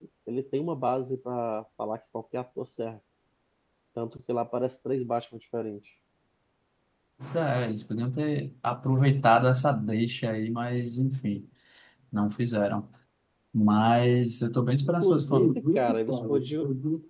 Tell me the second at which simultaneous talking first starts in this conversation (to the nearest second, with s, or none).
15 s